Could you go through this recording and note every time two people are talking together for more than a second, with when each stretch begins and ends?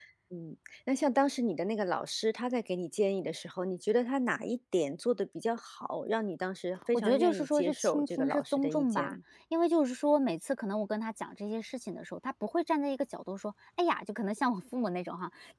6.9-9.2

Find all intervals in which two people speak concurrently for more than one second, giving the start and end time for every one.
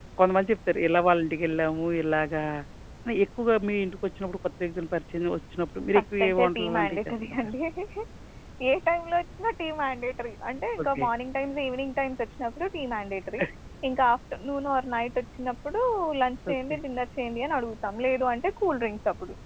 6.0-7.5

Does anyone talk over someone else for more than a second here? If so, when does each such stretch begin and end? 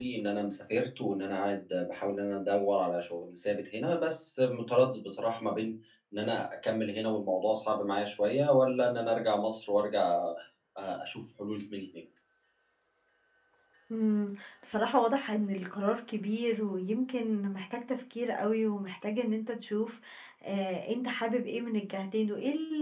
none

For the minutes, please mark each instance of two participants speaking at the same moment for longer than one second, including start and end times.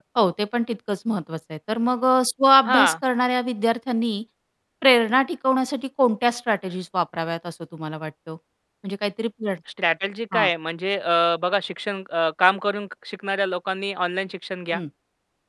none

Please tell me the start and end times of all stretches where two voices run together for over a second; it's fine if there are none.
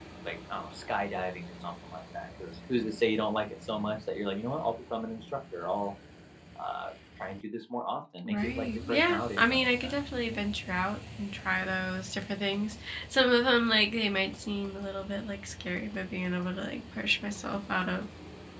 8.2-9.9

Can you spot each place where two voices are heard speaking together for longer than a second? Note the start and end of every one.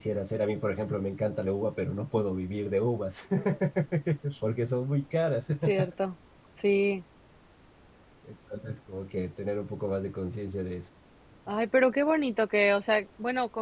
none

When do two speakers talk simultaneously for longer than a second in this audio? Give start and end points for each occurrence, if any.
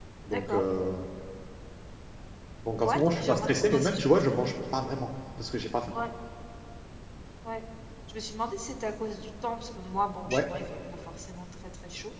2.8-4.2

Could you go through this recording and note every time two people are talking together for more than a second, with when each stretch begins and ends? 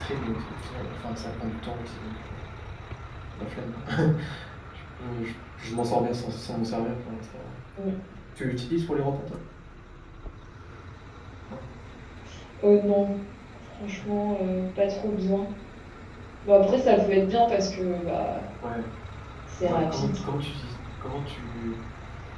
none

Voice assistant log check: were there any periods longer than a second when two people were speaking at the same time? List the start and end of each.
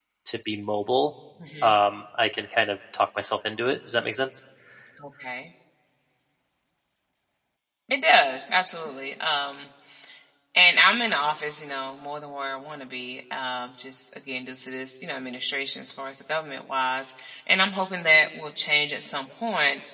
none

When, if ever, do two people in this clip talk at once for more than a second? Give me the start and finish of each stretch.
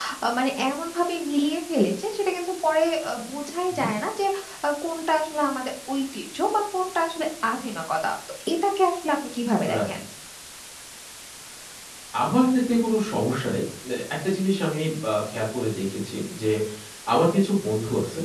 none

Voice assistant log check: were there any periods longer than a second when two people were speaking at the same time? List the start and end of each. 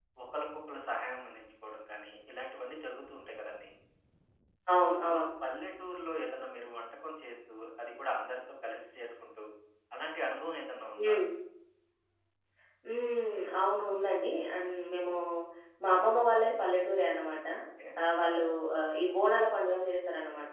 none

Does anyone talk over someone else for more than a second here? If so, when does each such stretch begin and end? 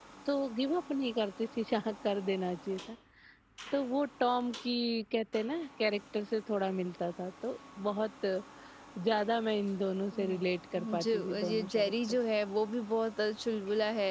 11.0-12.2

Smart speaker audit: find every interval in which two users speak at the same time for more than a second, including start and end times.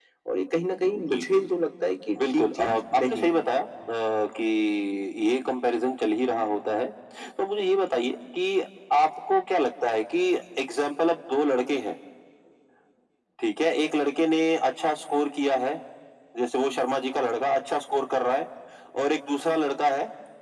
2.2-3.5

